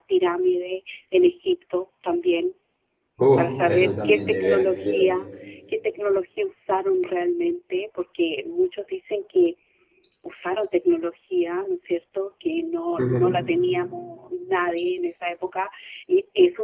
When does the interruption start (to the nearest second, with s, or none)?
3 s